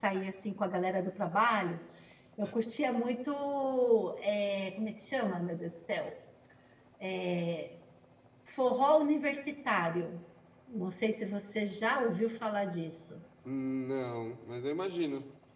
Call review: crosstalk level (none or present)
none